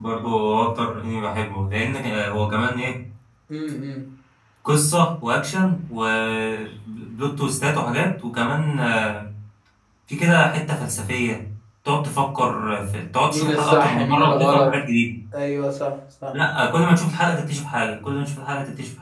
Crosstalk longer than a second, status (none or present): present